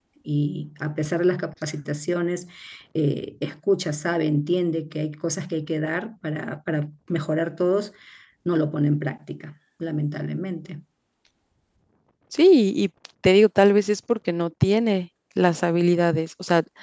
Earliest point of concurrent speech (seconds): none

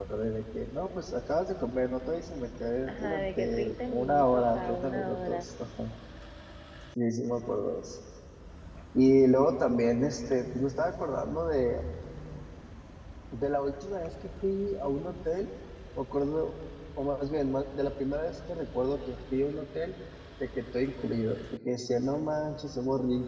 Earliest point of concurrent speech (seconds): 2.9 s

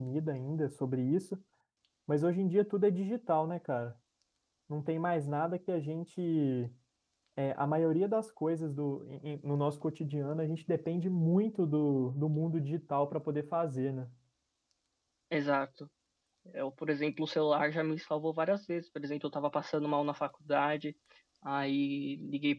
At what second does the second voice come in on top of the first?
none

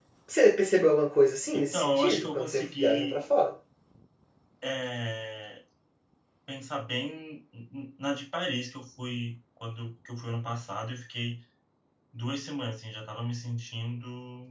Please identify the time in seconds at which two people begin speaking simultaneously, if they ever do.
1.5 s

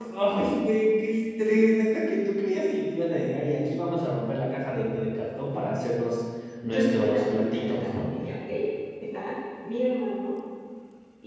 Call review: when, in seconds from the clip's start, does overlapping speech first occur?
6.6 s

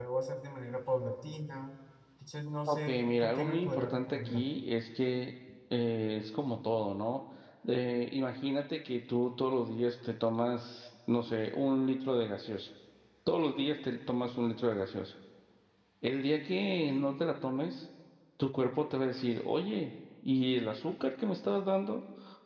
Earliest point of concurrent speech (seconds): 2.7 s

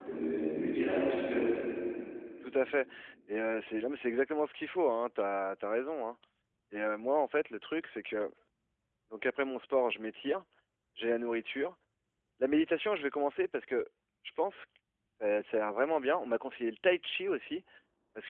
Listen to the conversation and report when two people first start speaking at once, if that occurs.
none

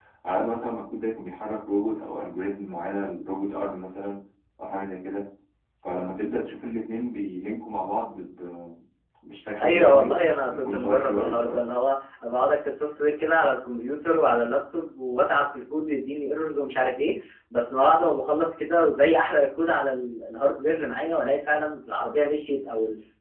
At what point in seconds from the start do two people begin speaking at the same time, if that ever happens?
9.6 s

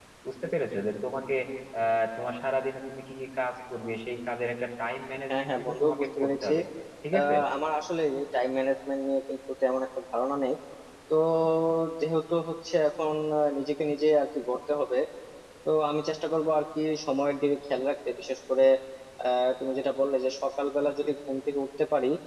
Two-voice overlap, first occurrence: 5.3 s

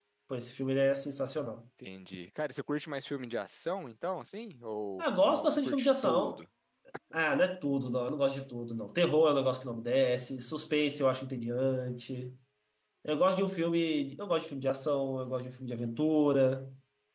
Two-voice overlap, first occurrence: 5.0 s

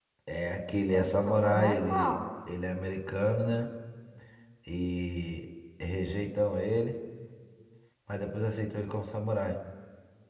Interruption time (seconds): 0.9 s

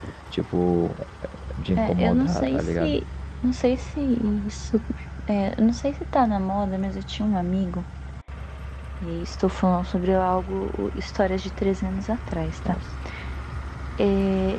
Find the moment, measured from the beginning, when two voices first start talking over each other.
1.8 s

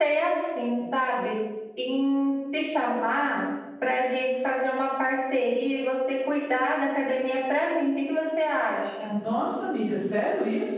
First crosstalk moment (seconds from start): none

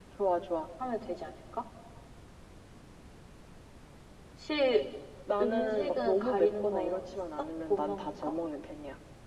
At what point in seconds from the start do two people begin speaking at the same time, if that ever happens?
5.4 s

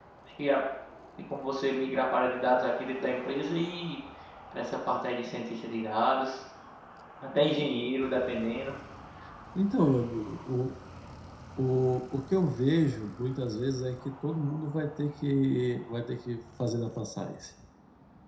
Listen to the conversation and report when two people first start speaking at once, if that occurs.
none

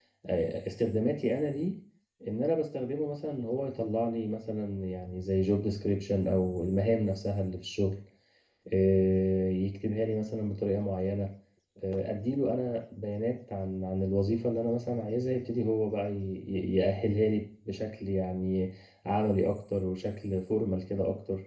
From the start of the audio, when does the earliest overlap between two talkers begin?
none

